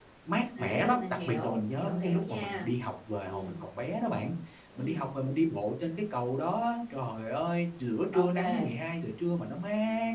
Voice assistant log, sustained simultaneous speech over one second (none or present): present